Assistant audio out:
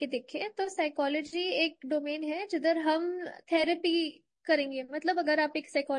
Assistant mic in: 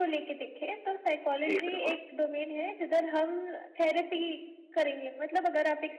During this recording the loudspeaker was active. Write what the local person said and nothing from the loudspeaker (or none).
जी, बिल्कुल।